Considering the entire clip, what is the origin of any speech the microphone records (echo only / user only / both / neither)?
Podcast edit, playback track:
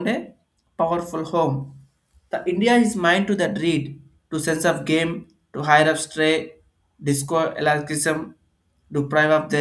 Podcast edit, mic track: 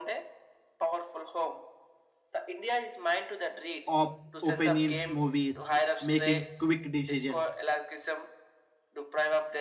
both